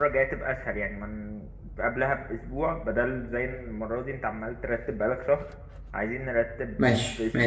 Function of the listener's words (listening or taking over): taking over